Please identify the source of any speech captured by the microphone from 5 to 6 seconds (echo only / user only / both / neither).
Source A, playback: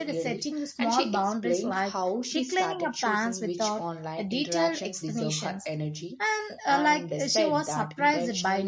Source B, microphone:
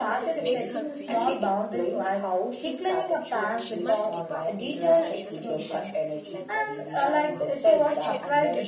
both